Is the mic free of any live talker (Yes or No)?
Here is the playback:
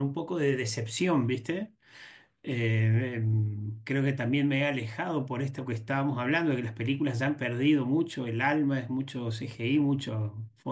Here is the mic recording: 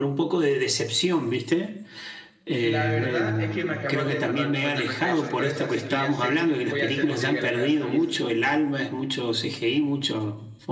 No